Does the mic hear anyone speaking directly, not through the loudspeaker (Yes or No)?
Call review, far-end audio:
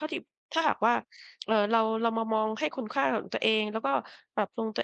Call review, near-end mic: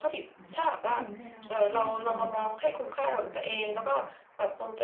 Yes